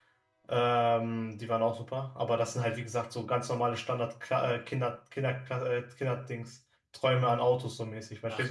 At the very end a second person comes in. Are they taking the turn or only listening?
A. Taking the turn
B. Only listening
A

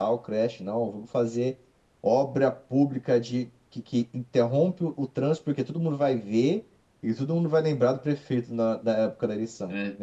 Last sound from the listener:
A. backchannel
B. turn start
B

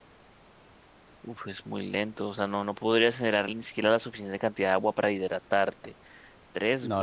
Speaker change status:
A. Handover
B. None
B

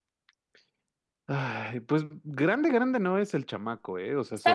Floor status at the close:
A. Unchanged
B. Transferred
A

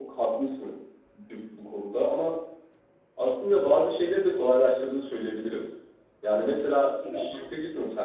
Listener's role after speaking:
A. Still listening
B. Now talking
A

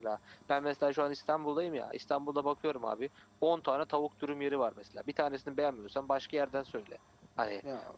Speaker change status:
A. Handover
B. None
B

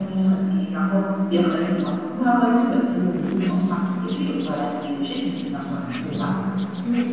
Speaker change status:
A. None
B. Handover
B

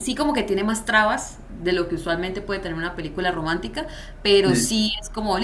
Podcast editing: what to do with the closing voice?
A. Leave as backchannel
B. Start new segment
A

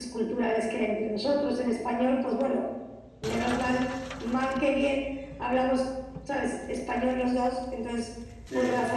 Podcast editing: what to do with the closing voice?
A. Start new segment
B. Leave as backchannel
B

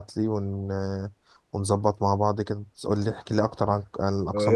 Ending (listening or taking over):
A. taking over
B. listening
A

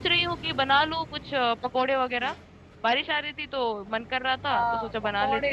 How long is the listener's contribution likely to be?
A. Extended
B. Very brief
A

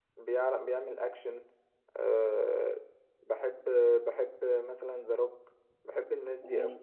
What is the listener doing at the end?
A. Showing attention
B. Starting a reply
B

